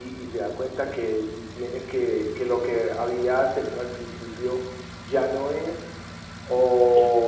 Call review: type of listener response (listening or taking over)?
listening